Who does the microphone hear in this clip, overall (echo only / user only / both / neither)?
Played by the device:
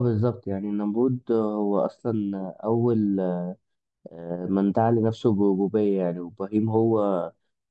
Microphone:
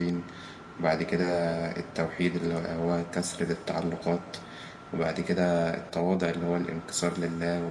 user only